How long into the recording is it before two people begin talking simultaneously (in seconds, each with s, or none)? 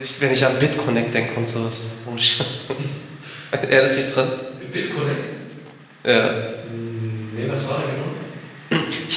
none